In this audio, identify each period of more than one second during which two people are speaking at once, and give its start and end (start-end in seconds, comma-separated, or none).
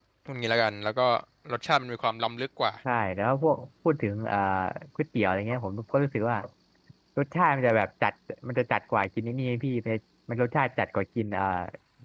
none